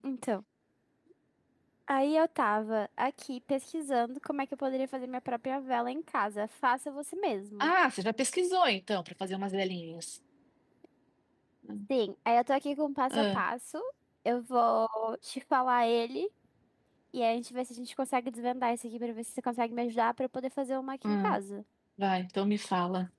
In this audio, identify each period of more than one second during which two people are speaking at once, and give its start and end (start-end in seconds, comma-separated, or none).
none